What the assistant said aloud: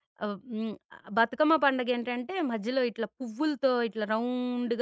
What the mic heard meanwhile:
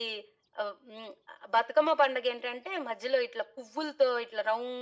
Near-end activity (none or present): none